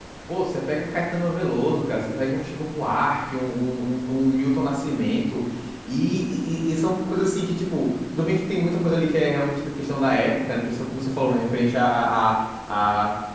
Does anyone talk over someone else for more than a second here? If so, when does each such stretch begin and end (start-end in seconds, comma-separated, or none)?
none